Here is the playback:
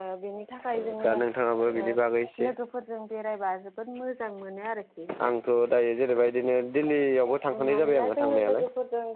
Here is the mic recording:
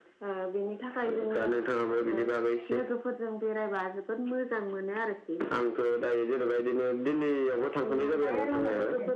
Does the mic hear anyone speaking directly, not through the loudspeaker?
Yes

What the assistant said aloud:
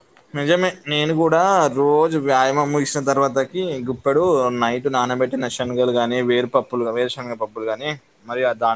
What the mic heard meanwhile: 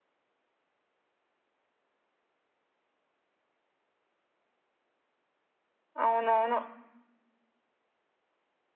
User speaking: Yes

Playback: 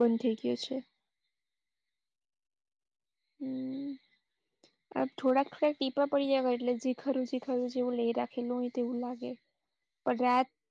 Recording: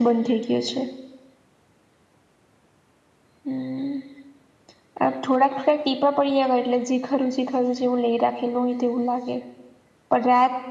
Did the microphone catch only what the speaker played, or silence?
Yes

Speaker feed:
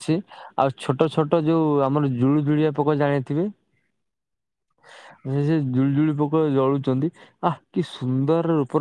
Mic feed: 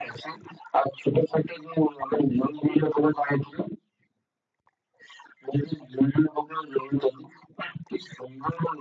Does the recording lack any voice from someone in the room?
Yes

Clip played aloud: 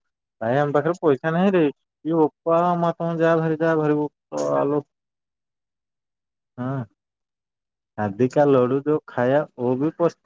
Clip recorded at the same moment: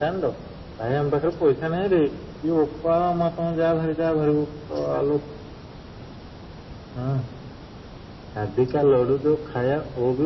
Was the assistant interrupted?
No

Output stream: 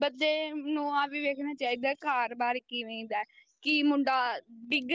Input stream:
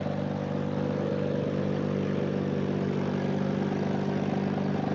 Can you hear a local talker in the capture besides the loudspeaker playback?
No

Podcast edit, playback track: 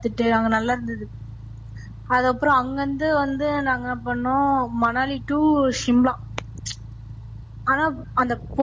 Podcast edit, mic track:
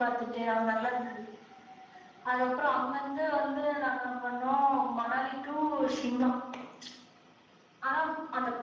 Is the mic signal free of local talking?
Yes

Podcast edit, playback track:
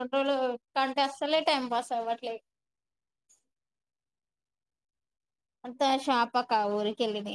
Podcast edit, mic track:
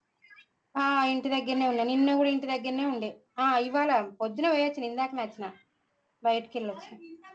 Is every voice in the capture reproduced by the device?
No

